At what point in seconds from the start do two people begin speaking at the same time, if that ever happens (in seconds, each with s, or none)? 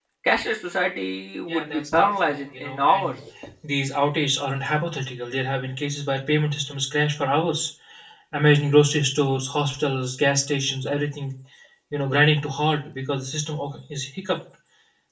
1.5 s